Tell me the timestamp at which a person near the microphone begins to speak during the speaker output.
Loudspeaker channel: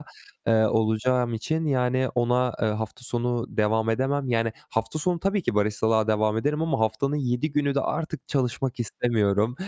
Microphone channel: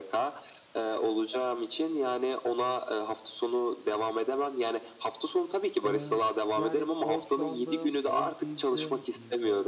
5.8 s

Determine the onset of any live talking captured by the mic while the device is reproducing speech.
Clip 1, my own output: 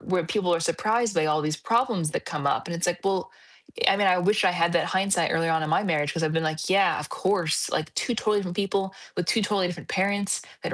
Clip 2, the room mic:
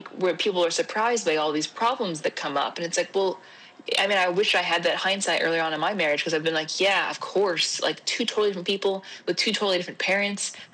none

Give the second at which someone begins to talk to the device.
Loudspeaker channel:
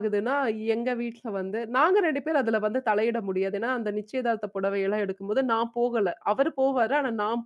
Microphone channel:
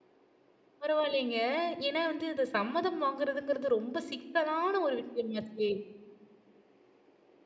0.8 s

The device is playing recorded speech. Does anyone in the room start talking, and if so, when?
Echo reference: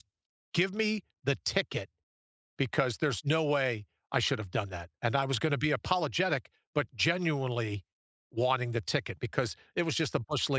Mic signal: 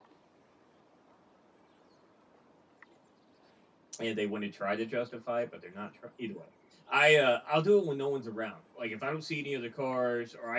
4.0 s

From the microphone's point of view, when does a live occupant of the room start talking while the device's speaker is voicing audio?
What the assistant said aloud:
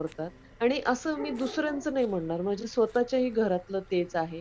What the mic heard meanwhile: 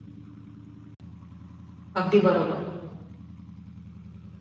2.0 s

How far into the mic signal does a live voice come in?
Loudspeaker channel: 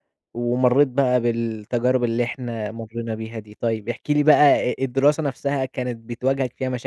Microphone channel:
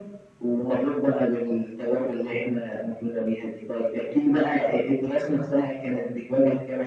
none

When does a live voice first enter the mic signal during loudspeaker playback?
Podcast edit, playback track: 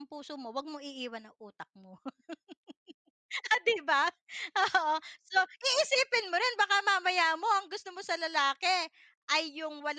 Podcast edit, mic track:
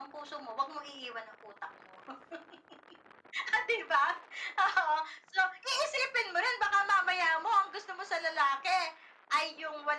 none

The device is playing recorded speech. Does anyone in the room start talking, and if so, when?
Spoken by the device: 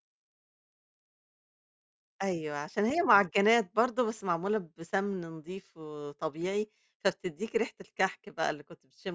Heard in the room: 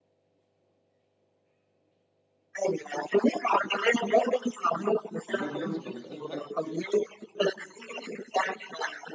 5.3 s

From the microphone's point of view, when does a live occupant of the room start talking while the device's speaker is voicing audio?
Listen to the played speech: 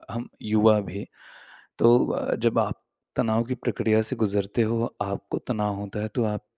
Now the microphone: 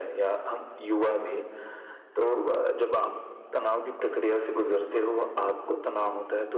none

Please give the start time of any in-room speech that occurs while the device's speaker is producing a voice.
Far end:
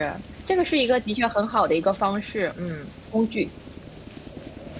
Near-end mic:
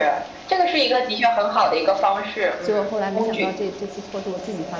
2.6 s

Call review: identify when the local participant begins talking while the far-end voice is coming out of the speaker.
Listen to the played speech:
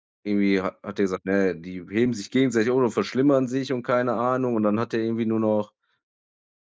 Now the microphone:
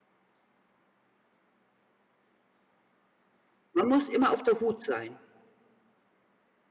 3.7 s

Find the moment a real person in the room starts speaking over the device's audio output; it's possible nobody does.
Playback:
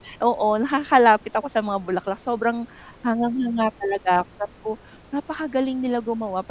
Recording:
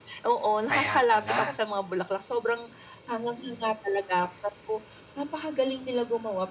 0.7 s

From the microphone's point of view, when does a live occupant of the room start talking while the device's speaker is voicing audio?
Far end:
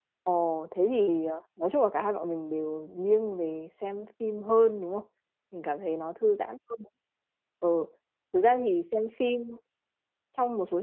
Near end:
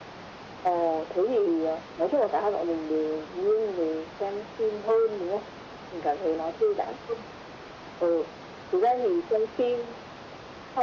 none

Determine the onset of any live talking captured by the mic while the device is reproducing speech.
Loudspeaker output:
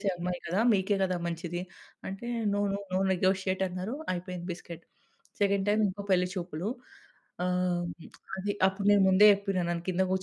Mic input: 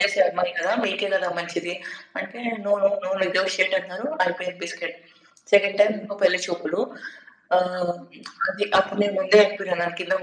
none

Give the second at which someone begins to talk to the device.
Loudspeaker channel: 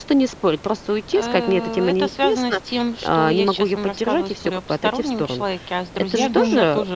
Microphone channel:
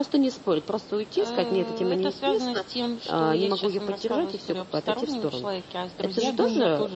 none

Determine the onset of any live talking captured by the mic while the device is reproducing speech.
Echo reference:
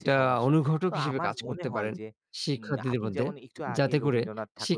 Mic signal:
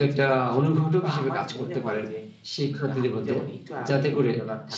none

